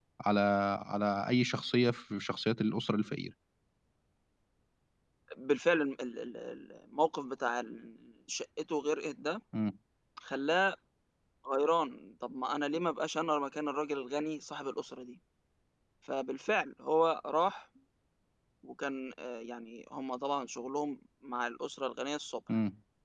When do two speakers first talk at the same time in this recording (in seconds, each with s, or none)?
none